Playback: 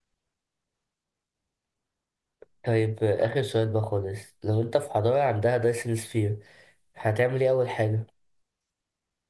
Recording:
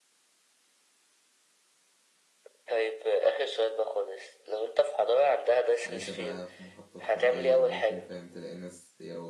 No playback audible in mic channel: No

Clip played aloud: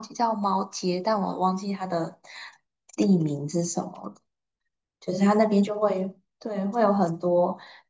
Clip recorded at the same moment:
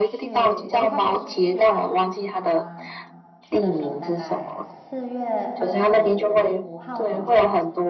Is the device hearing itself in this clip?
Yes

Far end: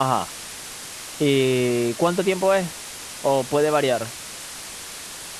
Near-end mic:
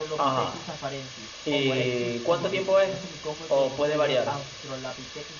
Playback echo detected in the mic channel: Yes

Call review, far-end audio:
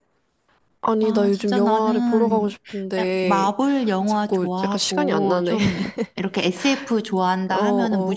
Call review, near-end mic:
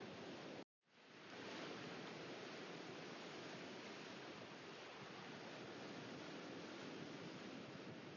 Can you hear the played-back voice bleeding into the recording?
No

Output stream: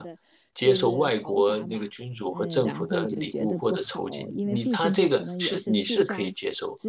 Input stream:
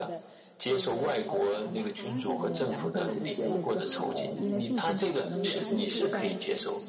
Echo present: Yes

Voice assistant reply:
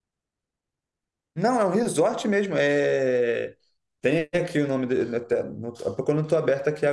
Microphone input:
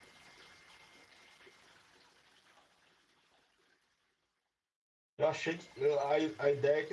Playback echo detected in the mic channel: No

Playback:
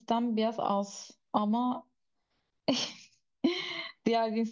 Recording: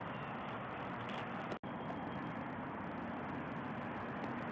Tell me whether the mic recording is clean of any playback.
Yes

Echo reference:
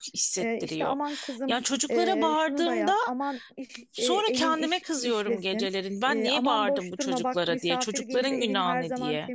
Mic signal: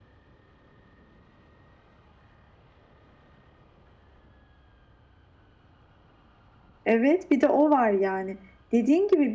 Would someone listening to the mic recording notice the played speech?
No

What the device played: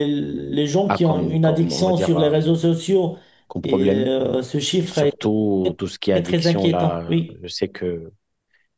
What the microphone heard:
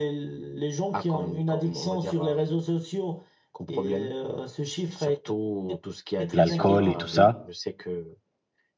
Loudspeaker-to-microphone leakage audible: Yes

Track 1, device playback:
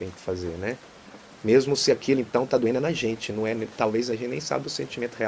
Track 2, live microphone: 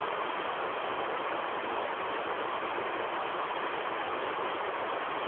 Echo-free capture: Yes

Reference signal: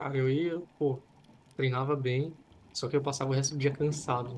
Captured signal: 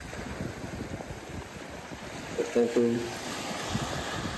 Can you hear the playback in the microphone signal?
No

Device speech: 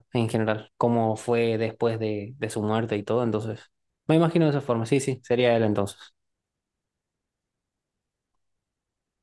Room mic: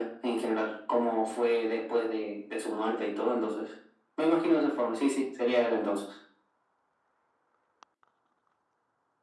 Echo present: Yes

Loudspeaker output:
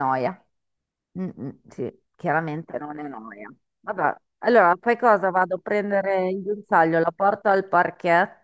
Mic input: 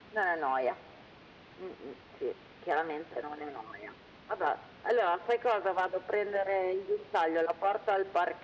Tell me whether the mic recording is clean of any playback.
No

